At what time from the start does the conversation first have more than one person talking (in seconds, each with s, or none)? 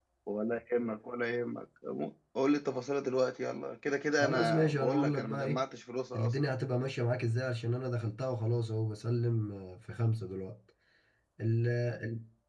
4.2 s